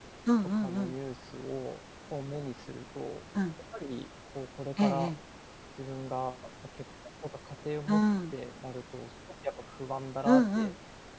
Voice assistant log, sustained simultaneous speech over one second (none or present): none